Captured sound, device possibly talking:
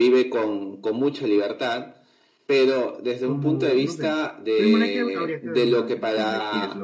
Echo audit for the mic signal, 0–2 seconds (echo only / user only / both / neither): echo only